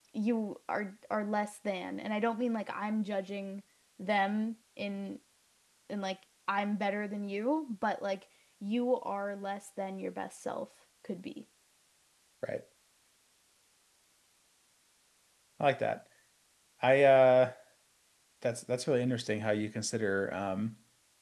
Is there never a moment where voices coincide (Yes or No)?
Yes